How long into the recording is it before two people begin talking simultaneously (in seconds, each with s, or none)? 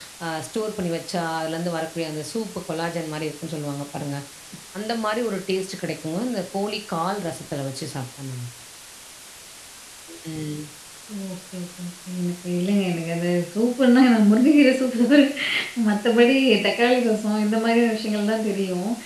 none